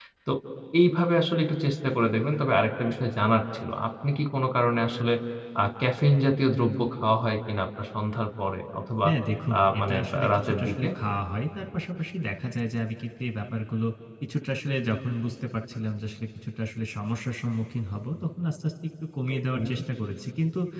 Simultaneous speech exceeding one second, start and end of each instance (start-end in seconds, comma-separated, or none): 9.6-10.9